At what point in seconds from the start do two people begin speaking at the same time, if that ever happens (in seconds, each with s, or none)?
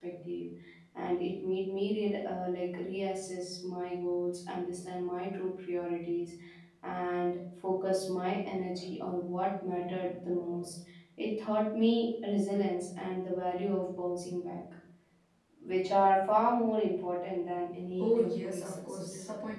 18.0 s